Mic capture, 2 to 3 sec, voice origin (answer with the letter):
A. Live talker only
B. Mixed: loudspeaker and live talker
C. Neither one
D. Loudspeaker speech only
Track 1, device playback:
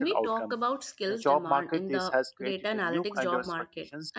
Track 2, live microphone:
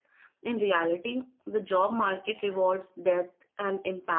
A